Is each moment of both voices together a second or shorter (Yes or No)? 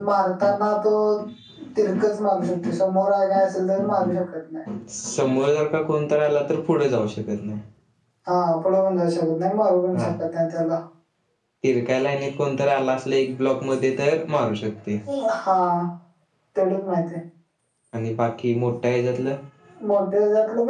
Yes